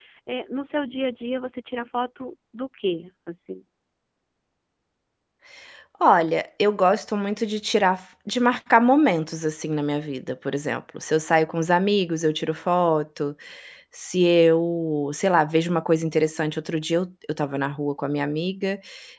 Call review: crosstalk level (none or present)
none